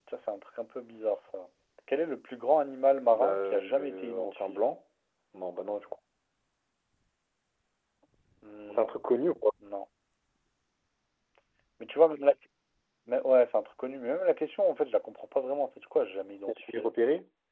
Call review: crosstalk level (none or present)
present